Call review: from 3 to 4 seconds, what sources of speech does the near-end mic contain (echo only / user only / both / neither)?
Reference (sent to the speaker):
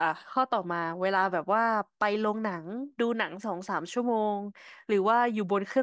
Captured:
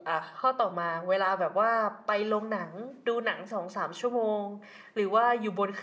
echo only